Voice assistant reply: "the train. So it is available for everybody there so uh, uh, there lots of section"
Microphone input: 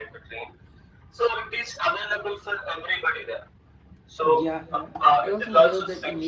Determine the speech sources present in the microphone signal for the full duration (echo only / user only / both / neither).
both